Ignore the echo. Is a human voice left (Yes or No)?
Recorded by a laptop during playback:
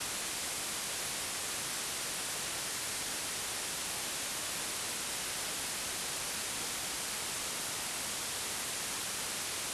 No